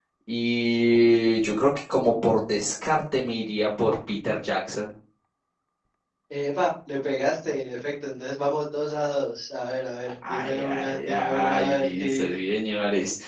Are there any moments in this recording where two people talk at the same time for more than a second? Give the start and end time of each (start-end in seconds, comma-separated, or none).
10.3-12.3